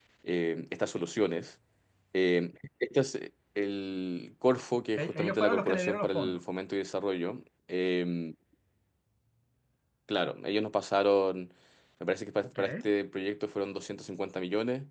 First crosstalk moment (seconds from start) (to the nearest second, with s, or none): 5 s